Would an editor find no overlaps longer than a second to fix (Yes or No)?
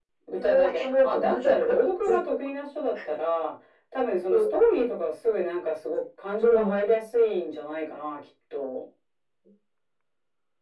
No